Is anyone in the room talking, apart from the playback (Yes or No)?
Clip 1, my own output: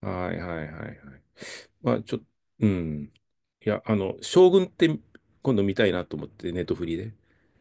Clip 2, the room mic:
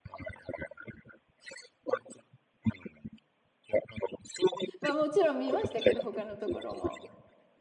Yes